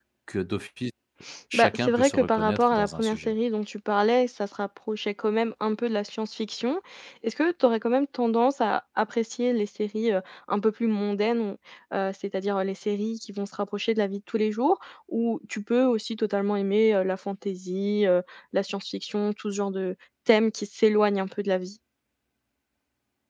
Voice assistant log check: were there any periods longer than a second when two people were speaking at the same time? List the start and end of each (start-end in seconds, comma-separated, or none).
1.5-3.3